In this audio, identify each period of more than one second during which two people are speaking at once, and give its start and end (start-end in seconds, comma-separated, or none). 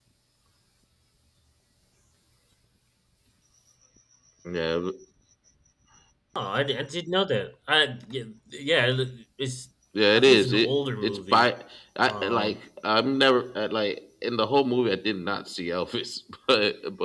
10.1-11.5